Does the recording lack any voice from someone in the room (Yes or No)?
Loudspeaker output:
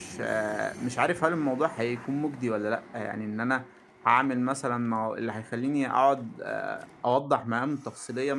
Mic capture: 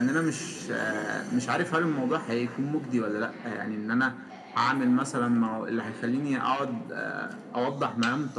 No